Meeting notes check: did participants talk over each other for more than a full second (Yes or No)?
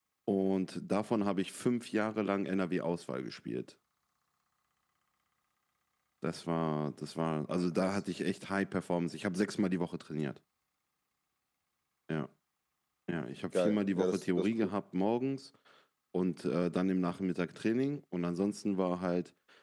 Yes